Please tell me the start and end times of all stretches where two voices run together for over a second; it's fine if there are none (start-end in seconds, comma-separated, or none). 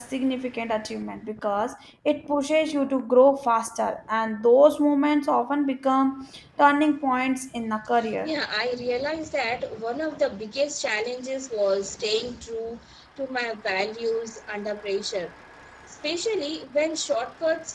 none